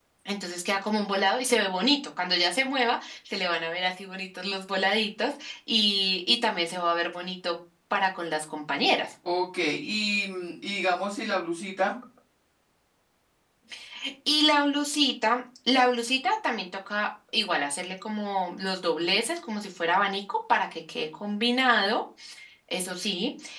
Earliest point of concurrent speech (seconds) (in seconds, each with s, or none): none